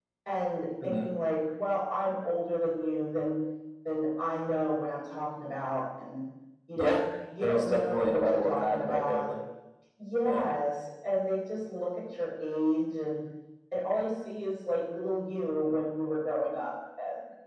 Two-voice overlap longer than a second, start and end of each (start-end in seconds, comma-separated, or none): 7.4-9.3